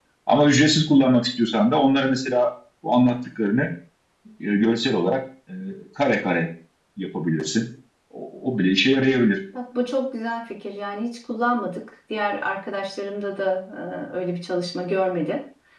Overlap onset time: none

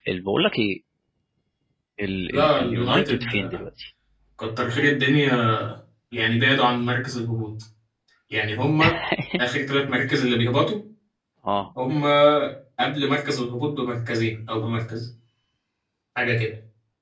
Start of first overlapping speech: 2.3 s

